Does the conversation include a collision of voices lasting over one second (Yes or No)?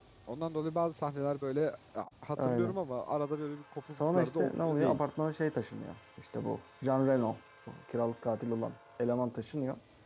Yes